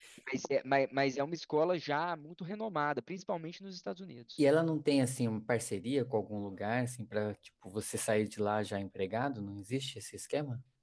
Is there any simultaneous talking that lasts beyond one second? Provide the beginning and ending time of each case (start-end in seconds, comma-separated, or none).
none